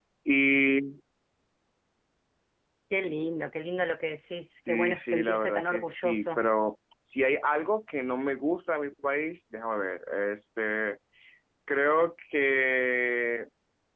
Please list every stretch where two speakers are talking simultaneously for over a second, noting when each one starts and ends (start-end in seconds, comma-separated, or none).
4.7-6.4